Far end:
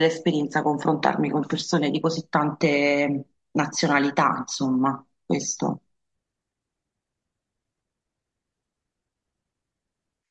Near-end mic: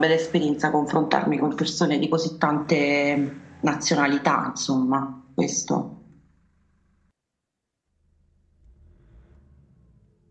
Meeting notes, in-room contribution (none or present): none